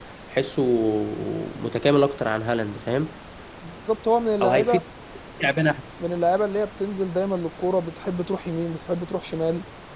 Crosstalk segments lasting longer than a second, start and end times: none

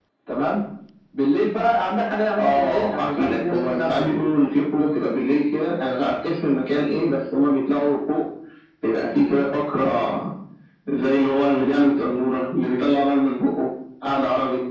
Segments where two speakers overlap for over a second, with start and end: 2.4-4.2

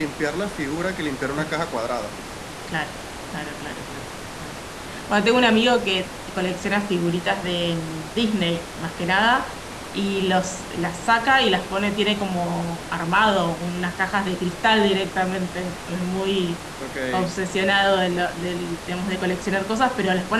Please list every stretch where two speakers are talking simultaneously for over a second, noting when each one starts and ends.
none

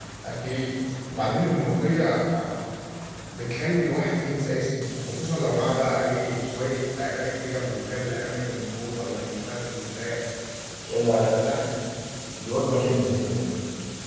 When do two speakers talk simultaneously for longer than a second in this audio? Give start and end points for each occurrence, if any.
none

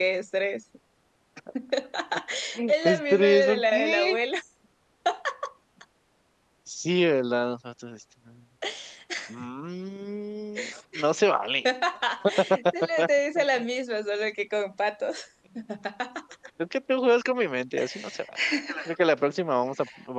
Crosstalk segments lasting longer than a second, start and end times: 2.9-4.2

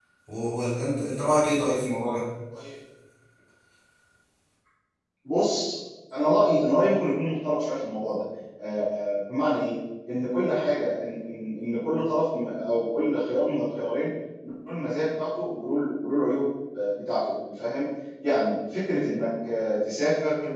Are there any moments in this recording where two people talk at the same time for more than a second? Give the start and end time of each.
none

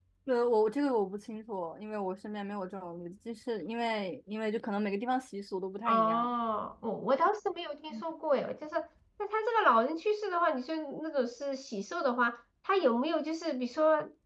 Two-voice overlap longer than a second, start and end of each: none

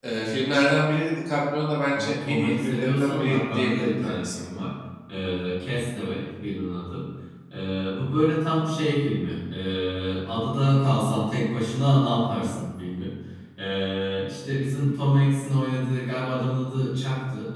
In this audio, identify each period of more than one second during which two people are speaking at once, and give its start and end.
1.9-4.4

